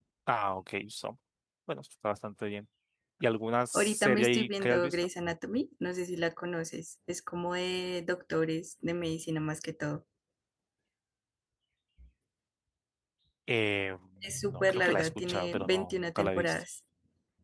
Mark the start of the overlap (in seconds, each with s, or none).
3.7 s